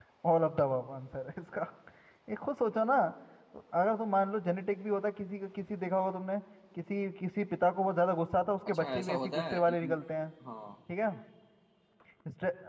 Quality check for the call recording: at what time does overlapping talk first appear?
8.7 s

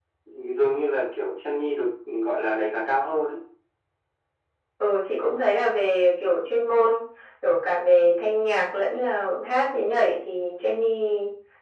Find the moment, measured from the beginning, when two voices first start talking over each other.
none

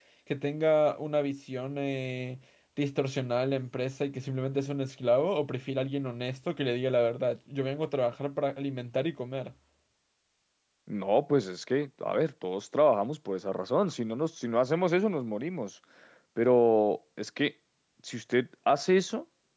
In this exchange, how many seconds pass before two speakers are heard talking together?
none

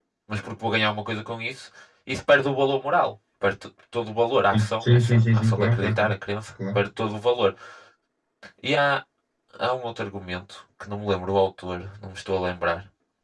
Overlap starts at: 4.5 s

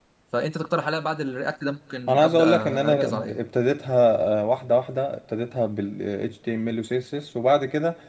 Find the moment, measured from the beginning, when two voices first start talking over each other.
2.1 s

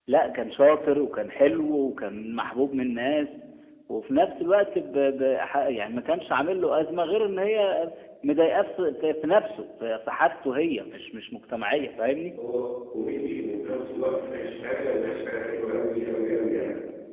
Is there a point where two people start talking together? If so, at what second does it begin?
none

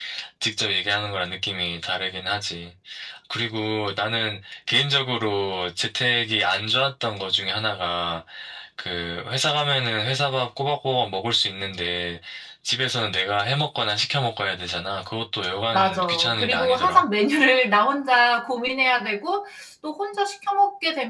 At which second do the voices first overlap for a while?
15.7 s

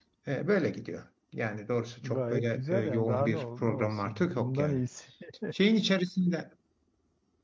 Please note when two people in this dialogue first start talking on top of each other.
2.0 s

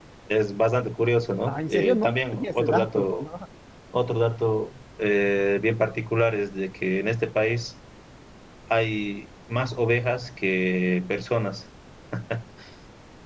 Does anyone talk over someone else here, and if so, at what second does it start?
1.5 s

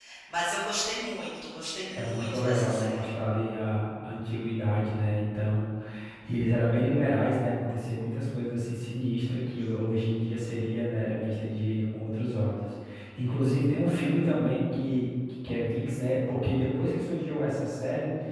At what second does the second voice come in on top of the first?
1.9 s

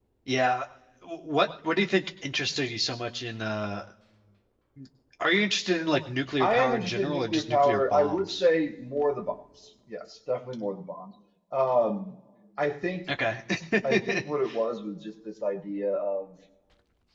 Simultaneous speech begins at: 6.4 s

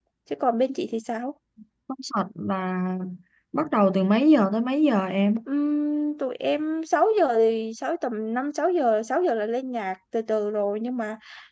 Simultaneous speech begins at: none

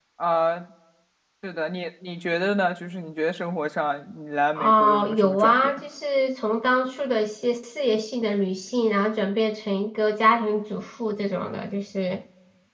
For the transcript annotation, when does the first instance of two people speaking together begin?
4.5 s

